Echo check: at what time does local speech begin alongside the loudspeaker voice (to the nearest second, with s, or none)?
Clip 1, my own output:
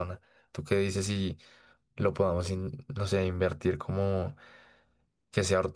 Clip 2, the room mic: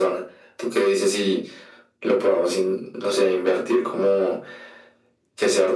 none